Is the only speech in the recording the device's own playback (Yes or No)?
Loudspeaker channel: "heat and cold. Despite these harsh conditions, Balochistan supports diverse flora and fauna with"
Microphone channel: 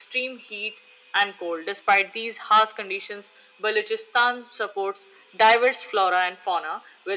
Yes